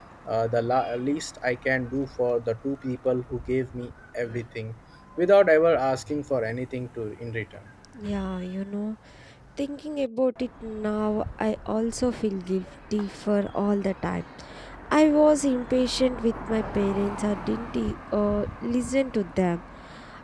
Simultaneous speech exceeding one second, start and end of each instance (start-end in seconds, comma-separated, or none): none